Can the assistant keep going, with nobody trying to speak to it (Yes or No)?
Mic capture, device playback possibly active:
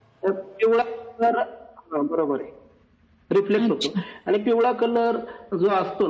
No